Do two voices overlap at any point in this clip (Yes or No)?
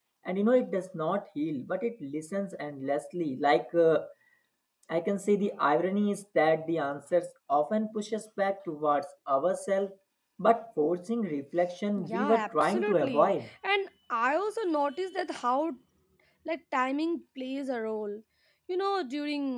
Yes